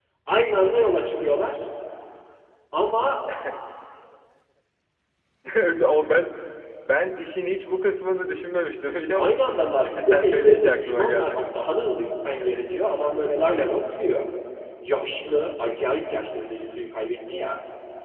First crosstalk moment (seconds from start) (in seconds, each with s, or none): 9.2 s